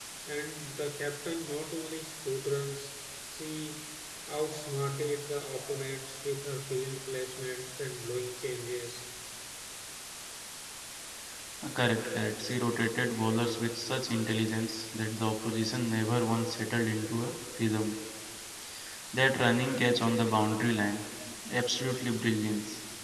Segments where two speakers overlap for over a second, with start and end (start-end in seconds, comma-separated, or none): none